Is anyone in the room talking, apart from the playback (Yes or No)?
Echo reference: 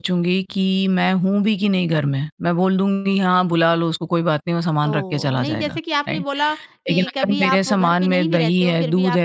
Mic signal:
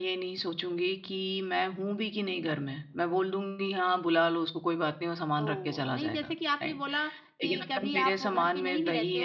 No